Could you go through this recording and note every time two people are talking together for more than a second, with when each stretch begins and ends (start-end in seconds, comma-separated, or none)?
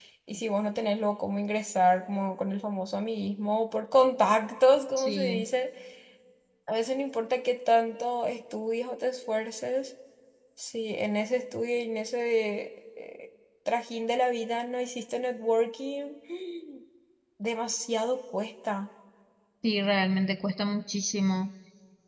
none